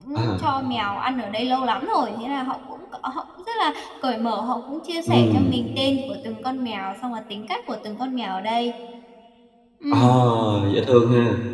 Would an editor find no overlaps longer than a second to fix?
Yes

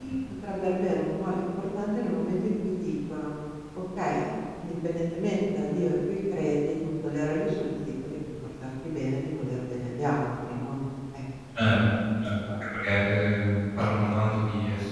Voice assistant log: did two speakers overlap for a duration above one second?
No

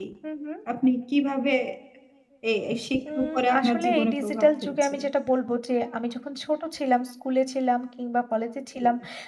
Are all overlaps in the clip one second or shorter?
No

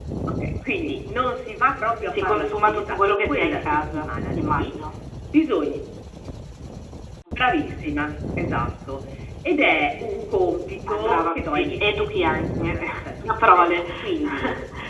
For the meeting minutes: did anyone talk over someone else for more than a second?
Yes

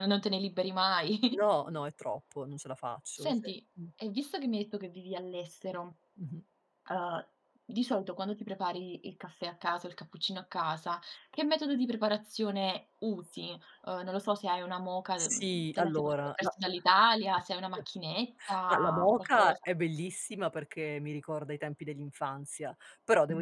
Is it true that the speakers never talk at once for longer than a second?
No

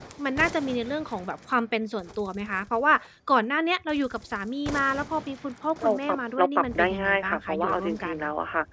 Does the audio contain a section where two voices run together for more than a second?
Yes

